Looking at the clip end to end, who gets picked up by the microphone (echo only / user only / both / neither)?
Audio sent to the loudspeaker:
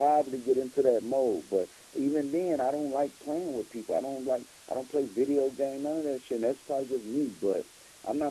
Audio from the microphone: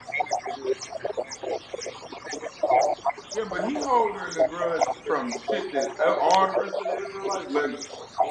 both